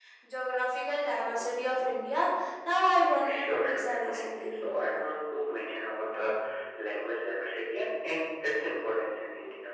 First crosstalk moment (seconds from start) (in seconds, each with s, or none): 3.3 s